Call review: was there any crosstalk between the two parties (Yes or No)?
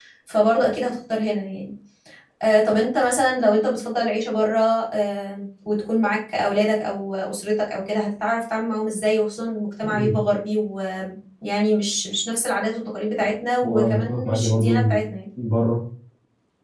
Yes